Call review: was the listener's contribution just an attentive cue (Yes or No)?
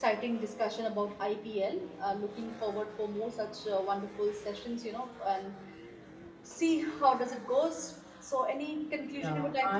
No